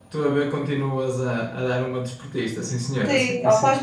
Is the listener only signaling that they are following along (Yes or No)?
No